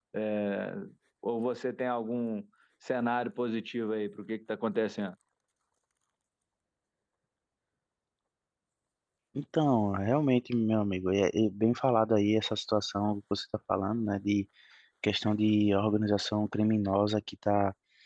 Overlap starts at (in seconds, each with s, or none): none